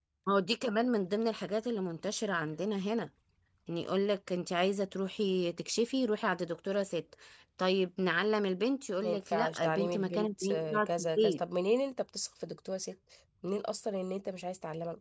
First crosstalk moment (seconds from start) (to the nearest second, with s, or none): 9 s